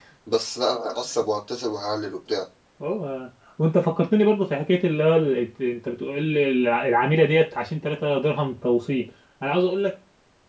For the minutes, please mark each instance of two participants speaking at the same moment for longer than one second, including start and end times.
none

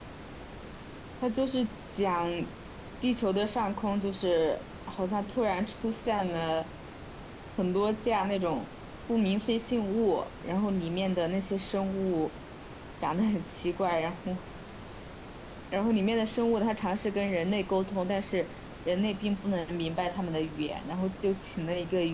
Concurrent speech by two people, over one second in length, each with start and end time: none

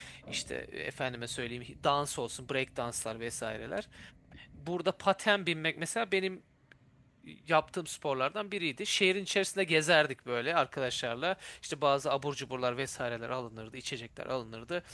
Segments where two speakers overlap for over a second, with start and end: none

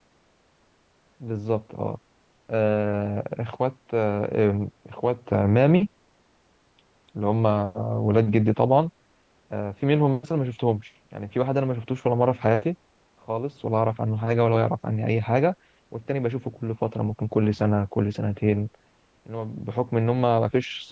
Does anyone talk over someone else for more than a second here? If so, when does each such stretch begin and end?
none

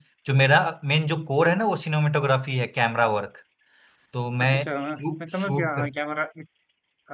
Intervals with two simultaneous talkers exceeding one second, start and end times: 4.4-5.8

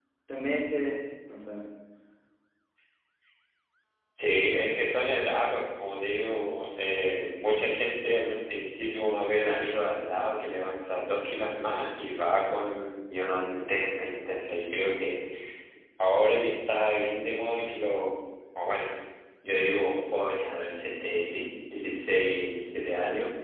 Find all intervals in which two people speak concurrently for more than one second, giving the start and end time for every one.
none

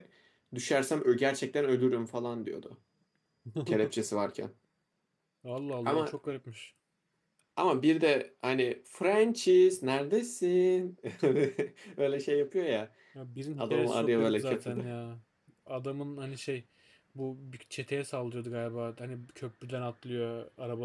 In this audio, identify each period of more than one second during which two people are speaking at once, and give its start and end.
13.6-14.9

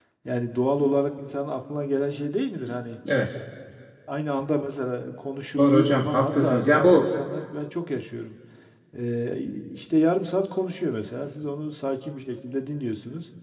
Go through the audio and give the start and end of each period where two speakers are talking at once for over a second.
5.6-7.1

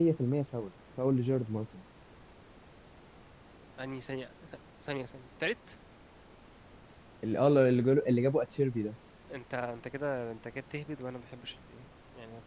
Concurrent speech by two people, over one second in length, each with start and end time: none

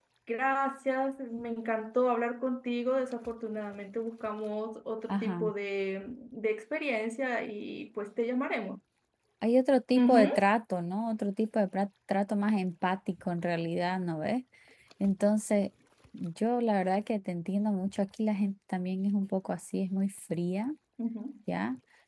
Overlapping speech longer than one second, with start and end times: none

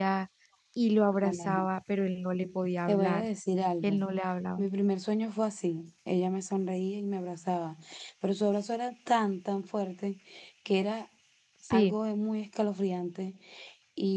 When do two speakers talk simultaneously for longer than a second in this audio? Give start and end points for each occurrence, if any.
none

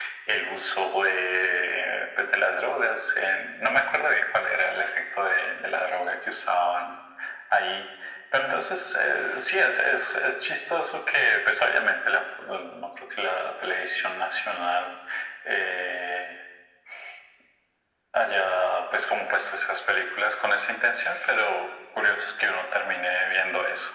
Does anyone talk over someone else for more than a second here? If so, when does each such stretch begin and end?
none

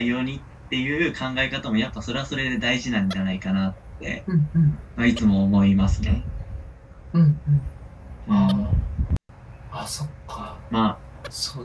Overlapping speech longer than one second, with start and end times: none

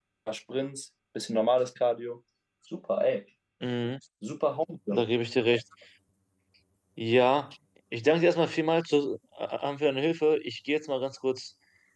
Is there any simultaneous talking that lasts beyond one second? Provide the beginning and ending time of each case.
none

